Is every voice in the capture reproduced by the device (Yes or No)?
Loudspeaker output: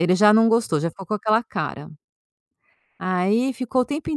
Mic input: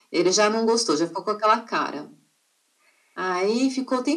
Yes